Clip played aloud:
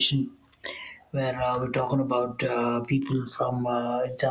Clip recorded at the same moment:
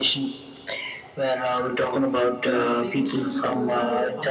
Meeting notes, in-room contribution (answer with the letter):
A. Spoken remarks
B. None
A